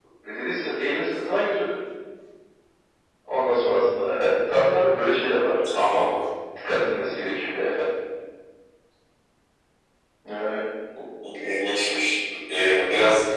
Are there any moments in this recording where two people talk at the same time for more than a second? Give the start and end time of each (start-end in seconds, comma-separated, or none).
none